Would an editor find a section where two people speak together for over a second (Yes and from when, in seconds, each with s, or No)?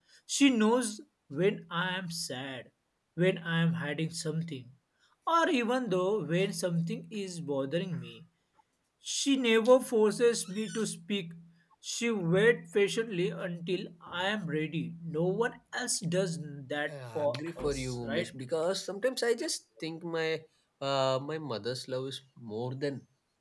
Yes, from 16.9 s